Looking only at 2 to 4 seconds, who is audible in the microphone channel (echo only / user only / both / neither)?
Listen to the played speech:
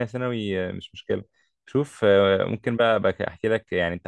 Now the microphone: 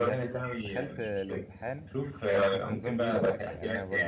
both